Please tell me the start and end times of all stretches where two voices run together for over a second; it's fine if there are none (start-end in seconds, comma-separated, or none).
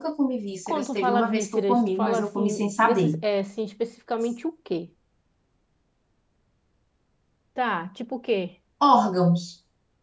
0.7-3.2